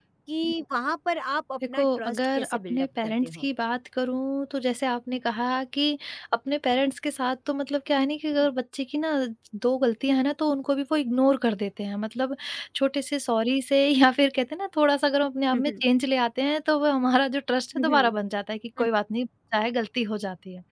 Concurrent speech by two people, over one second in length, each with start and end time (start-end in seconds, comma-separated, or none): 1.8-3.4